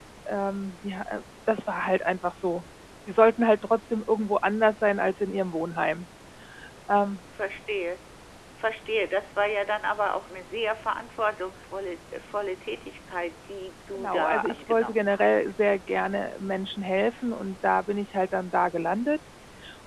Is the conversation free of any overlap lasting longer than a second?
No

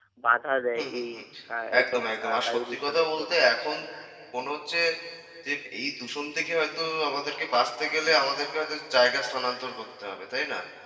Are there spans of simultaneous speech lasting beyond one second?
Yes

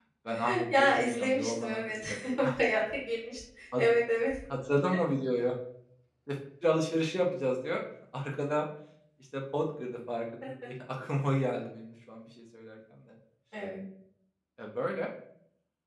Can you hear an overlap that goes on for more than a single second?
Yes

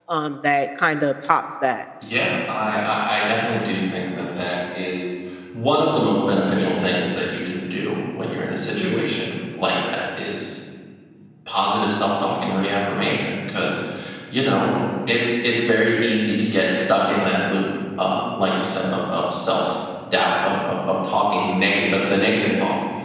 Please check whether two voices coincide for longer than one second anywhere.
No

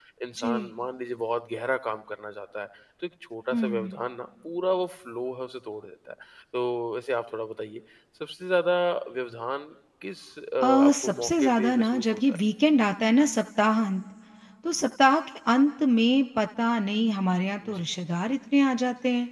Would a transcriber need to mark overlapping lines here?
Yes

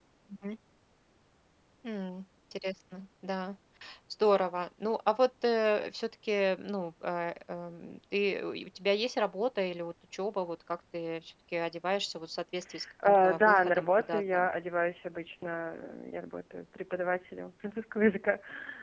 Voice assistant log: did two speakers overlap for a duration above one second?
Yes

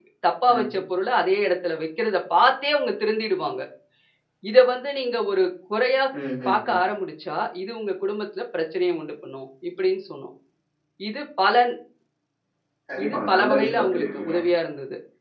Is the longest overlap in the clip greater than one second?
Yes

